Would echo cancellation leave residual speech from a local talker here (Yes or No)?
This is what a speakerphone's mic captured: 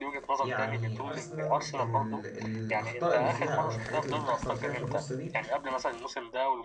Yes